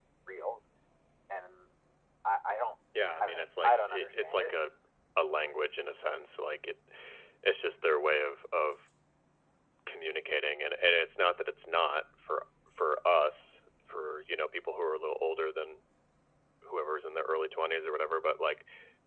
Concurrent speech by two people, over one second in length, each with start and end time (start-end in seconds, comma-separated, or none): 3.2-4.6